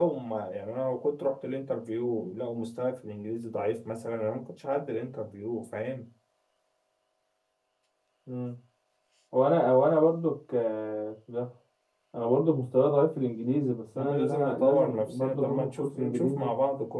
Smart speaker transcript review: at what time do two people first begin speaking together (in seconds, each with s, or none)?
13.9 s